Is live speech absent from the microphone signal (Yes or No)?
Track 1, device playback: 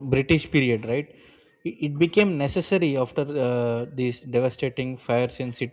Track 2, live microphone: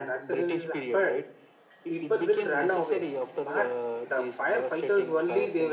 No